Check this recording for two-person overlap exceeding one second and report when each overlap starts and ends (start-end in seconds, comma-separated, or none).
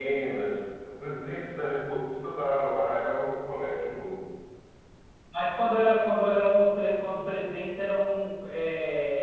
none